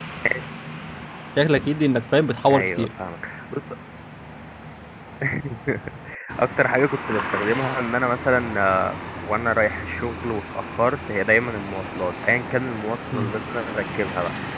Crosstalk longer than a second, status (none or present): none